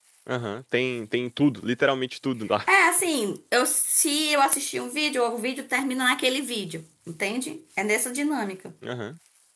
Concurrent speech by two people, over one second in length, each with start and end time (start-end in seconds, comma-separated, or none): none